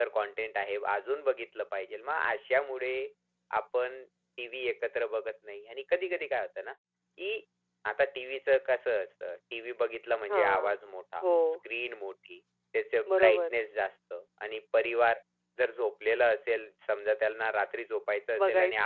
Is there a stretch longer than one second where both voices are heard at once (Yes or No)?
No